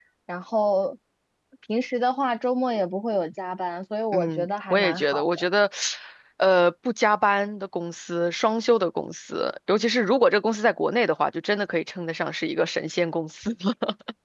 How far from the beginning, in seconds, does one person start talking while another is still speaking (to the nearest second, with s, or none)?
4 s